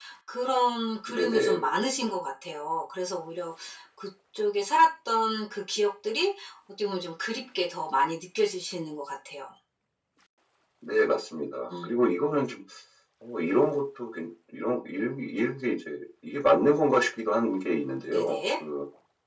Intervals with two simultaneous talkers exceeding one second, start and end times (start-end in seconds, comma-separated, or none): none